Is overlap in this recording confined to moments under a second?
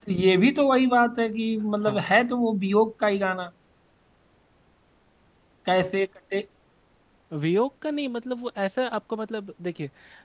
Yes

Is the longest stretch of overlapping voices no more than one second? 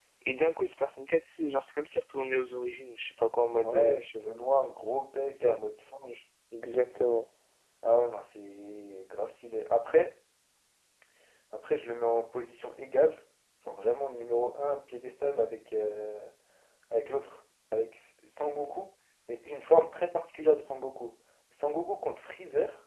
Yes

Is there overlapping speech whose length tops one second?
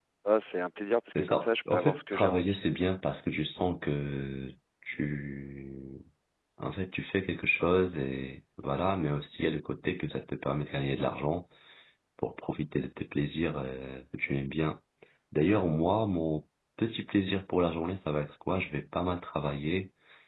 Yes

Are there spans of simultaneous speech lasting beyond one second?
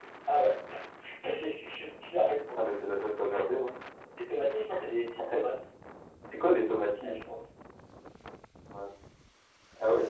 No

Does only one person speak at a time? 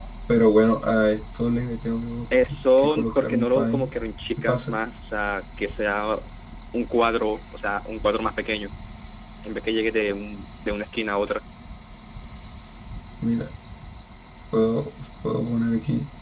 No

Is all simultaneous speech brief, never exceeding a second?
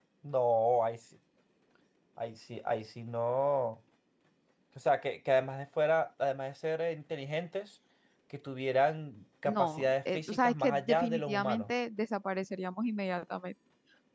No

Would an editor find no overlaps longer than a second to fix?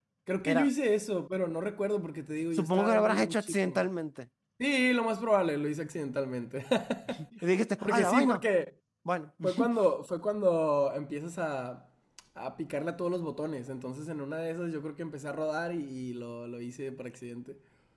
No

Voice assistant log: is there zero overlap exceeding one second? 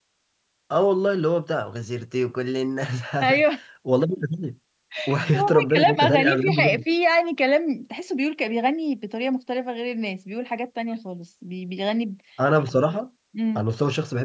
No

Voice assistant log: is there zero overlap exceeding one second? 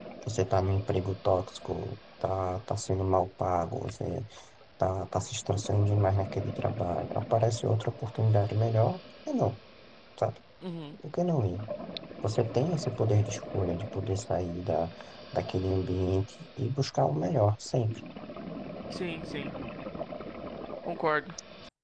Yes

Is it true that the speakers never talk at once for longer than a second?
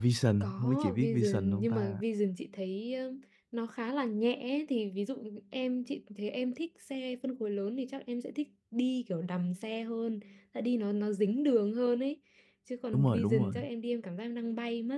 No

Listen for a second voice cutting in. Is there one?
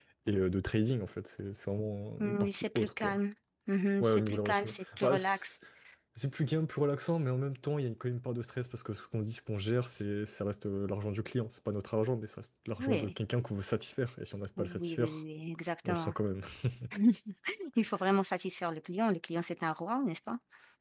Yes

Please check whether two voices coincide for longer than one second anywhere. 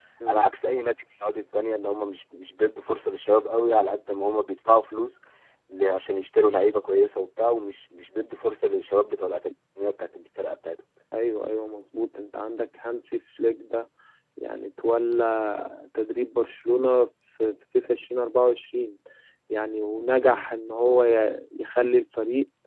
No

